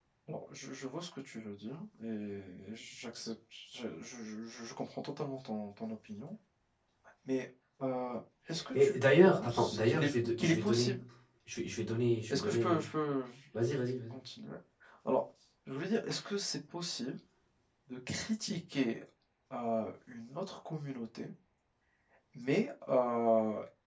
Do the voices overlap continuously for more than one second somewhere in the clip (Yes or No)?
Yes